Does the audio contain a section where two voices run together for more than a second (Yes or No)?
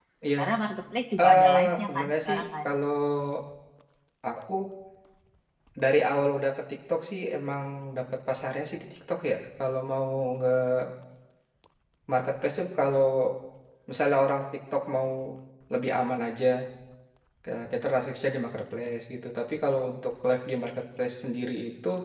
Yes